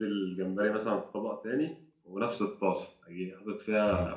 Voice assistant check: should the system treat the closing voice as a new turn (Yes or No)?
No